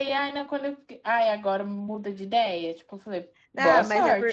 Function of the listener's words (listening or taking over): taking over